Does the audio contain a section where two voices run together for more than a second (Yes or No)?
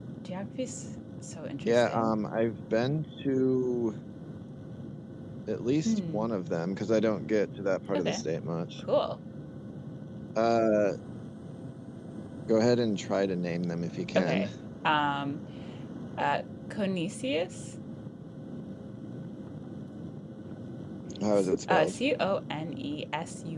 No